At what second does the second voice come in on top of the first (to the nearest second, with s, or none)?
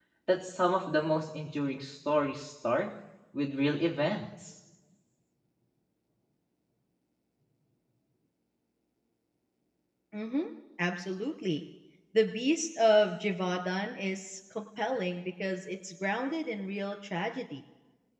none